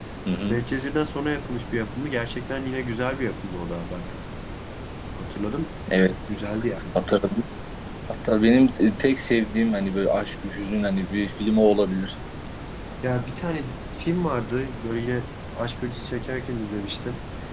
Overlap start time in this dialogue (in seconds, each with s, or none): none